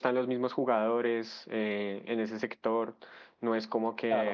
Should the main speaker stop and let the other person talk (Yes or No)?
Yes